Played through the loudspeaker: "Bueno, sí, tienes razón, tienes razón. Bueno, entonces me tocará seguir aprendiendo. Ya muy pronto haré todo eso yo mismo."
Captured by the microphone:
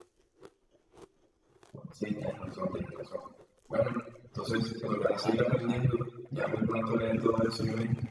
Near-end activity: present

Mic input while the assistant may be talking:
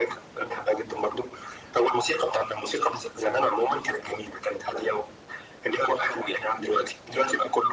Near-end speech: none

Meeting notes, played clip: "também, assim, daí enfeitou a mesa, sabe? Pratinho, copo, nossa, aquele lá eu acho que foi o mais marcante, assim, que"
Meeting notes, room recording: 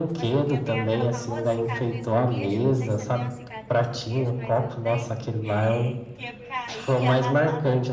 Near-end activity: present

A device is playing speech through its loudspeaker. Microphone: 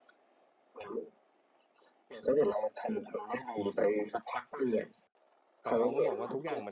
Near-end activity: present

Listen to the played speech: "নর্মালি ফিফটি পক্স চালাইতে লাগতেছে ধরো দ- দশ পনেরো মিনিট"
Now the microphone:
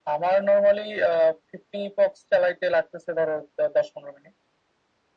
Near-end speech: none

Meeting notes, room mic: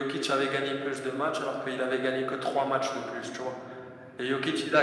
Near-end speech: none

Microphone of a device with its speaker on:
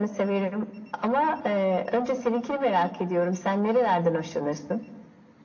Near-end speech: none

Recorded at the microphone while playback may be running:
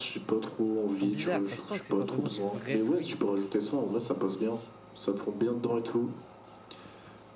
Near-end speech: present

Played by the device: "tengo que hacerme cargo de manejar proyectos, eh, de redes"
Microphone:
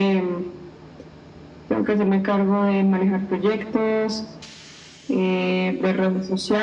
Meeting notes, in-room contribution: none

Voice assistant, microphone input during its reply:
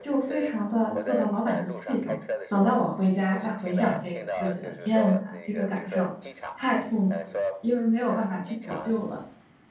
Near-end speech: present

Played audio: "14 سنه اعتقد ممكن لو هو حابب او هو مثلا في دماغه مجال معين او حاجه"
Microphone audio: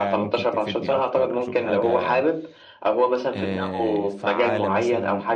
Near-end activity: present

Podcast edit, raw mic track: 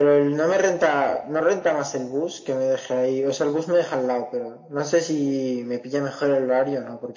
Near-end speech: none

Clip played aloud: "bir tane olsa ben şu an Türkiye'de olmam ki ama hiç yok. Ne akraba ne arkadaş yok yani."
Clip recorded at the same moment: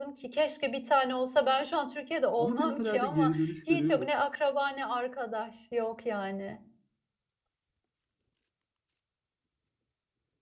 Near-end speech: present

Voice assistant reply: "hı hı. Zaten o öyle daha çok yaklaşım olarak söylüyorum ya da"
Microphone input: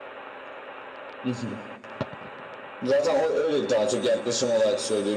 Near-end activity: none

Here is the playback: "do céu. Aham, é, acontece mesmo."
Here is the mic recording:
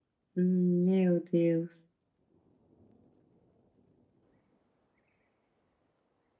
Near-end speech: present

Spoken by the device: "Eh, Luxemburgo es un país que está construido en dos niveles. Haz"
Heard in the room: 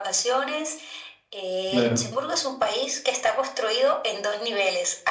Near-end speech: present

